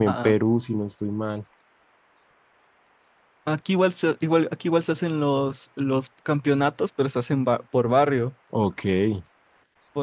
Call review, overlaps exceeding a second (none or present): none